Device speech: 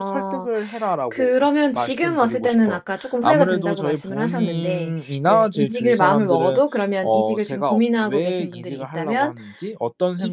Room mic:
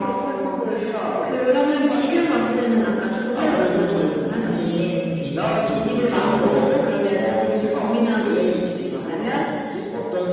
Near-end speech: none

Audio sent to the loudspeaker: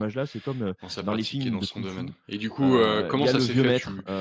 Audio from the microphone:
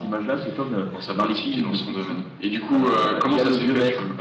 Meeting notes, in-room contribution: none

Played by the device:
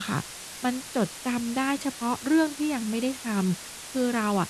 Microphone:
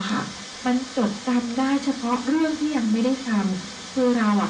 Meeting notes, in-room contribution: none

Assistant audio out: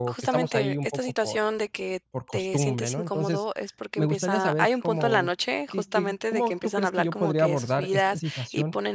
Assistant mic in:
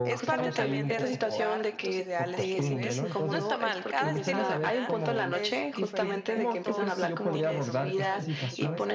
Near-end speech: present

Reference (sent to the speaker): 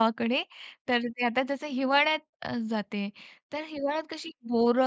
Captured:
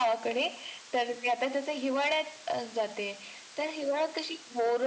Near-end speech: none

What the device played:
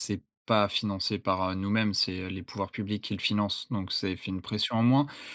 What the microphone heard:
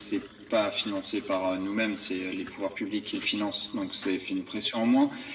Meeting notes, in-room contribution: none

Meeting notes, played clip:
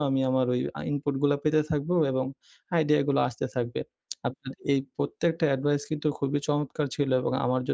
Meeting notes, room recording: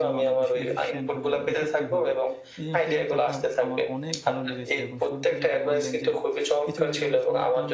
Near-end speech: present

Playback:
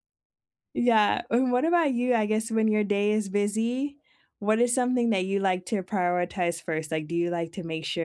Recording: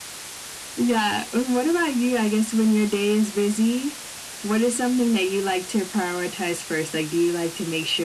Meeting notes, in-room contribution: none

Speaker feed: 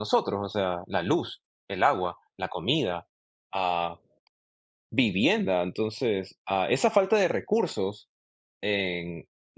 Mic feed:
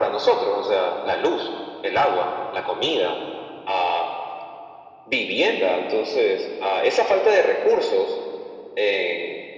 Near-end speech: none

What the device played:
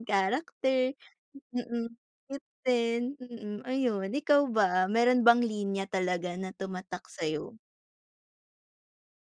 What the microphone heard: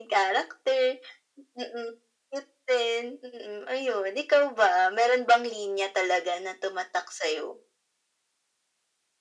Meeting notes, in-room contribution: none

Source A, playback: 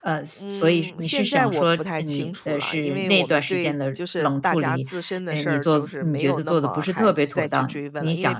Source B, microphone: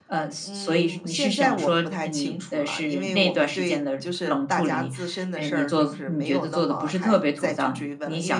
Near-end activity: none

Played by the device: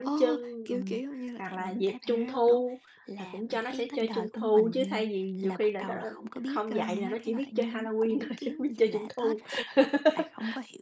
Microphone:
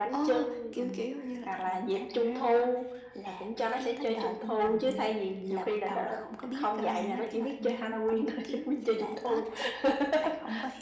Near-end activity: none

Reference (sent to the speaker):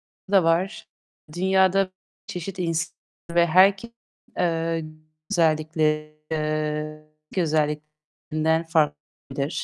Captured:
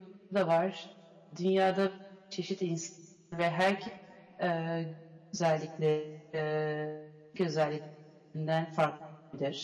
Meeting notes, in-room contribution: none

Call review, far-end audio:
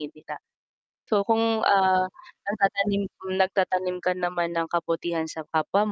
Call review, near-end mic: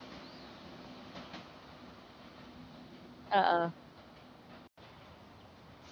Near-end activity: present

